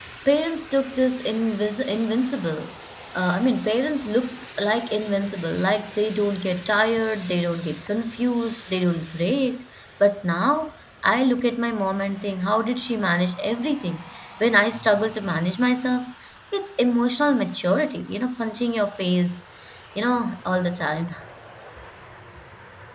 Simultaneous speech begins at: none

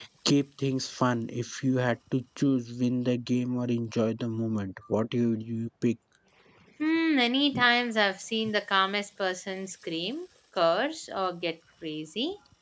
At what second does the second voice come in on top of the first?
none

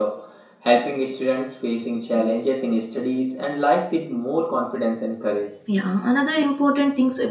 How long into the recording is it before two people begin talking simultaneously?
none

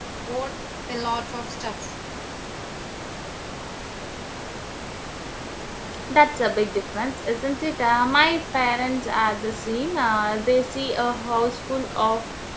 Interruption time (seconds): none

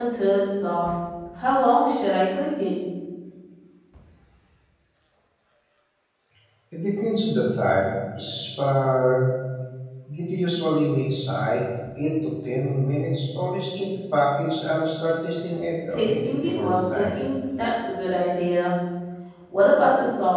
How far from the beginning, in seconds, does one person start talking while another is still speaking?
15.9 s

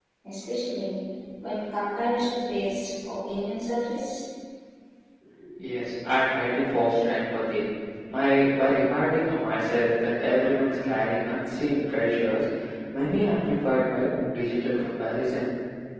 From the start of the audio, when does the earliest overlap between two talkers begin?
none

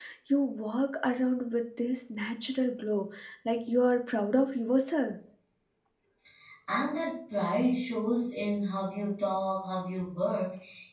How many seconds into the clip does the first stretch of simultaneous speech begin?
none

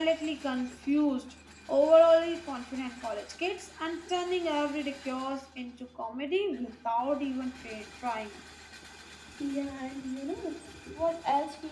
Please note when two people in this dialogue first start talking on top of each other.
none

